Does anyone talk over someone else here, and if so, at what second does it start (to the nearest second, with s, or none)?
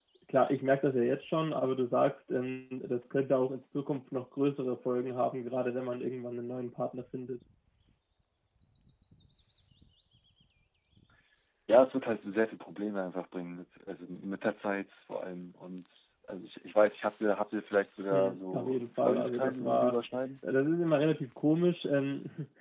18 s